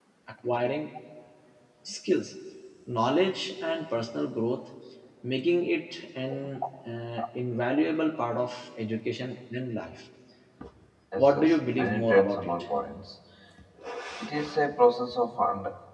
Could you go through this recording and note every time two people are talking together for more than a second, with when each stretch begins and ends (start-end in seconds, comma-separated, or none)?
11.1-12.5